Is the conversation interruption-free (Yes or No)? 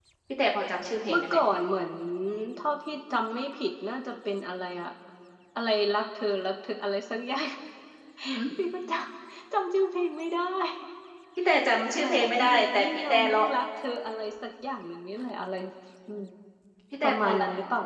No